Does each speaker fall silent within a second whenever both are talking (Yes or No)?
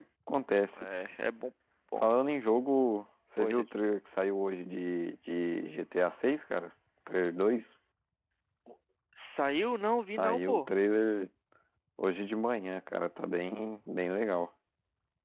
Yes